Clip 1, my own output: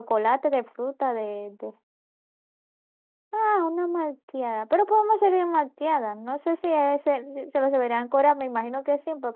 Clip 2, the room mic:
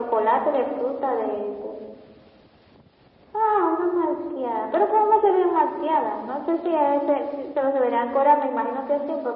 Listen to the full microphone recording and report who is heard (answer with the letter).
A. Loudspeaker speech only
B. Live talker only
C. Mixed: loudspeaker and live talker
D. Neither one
A